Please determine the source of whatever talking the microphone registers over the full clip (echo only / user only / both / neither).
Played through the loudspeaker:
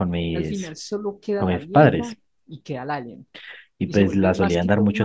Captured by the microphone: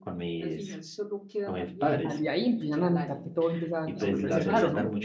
both